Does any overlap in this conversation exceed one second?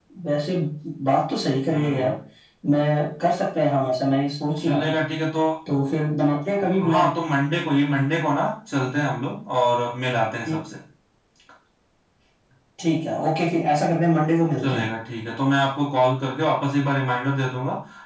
No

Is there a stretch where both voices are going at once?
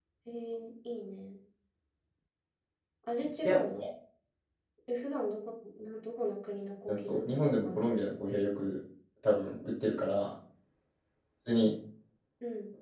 Yes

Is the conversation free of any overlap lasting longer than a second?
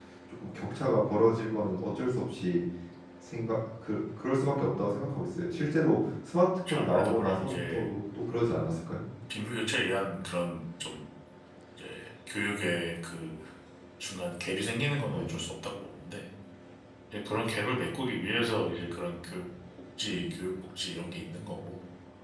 No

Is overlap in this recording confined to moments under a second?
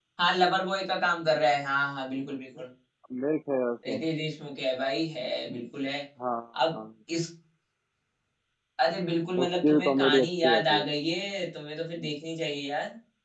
No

